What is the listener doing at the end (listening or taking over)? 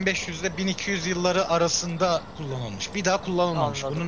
listening